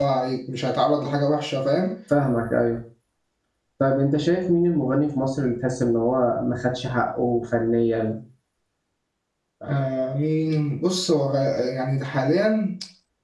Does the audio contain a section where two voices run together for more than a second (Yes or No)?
No